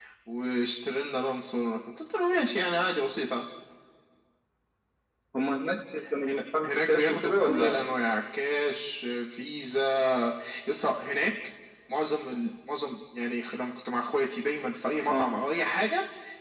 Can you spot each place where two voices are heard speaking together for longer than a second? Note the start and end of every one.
6.2-7.8

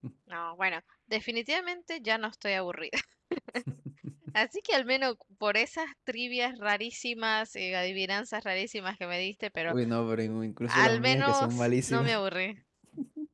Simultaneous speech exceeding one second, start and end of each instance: 10.7-12.2

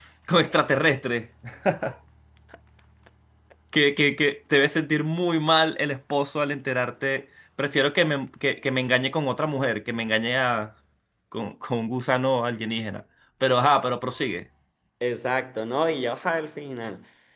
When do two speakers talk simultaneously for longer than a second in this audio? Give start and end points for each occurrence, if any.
none

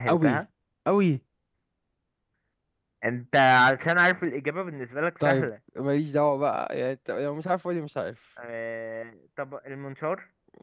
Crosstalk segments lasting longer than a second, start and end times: none

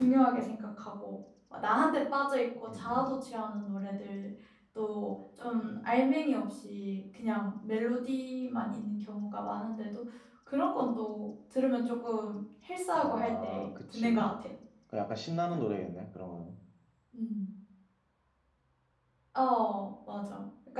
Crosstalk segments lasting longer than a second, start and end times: 13.0-14.3

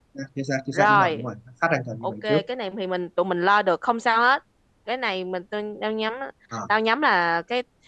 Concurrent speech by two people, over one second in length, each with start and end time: none

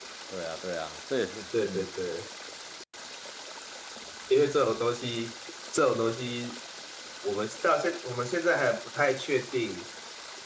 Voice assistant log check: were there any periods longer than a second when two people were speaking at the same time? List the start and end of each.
none

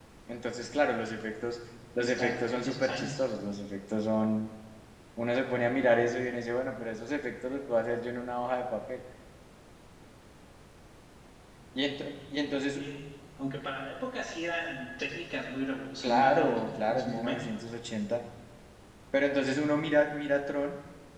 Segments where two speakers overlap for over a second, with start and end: 2.0-3.2, 16.0-17.5

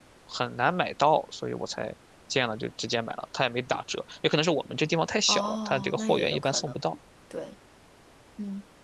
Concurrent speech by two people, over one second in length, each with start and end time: 5.3-6.7

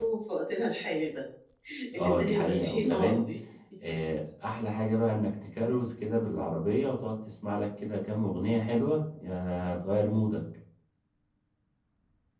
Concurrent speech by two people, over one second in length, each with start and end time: 2.0-3.2

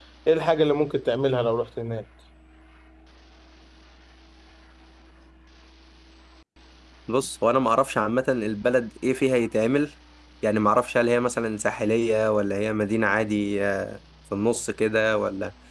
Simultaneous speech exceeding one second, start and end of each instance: none

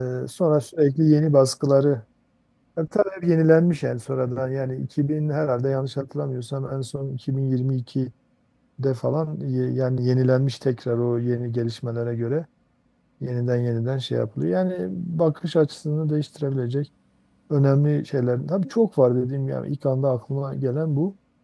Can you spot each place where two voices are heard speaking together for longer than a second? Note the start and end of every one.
none

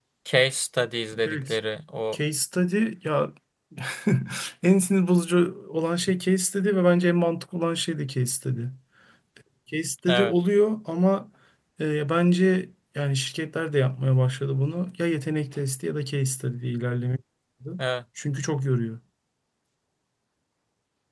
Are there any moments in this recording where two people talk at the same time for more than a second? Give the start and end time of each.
none

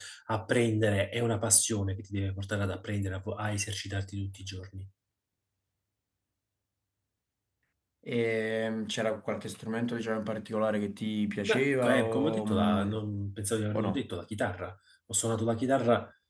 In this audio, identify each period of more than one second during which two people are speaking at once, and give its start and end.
11.5-12.9

